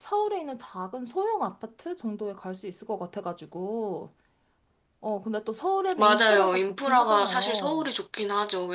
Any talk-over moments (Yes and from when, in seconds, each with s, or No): Yes, from 5.9 s